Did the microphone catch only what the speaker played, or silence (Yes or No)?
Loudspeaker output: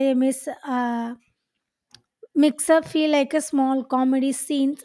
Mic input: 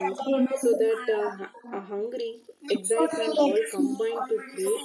No